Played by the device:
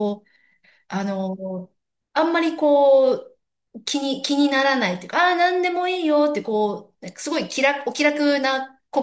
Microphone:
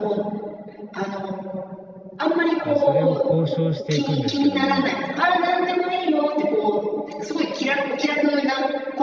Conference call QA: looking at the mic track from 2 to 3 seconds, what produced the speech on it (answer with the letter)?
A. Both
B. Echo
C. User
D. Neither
A